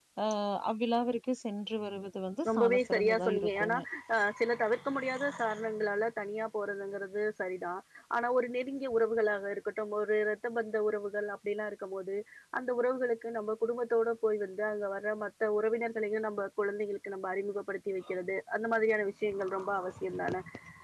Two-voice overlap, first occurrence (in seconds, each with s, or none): 2.5 s